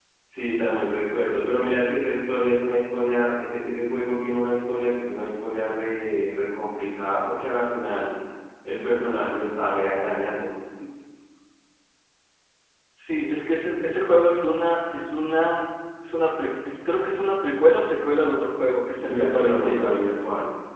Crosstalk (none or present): present